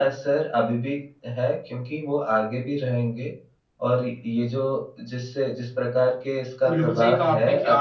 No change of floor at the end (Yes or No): No